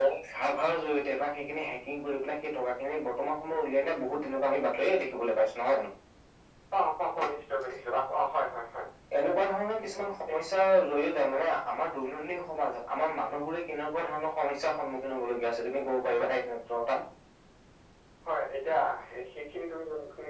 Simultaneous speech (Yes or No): No